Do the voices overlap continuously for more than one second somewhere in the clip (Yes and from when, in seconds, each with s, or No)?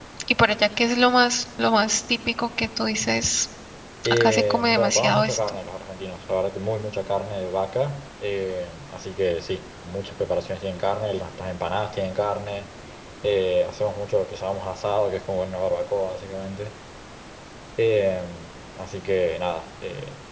Yes, from 4.1 s